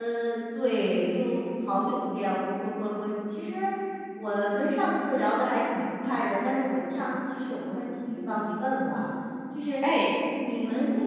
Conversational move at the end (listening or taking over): listening